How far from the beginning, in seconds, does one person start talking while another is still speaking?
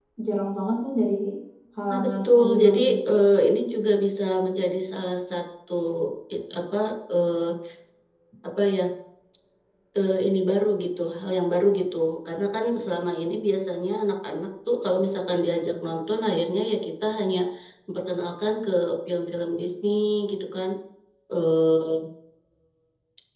1.9 s

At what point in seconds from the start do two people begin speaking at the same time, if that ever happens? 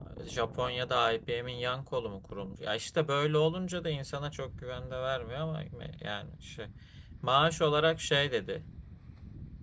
none

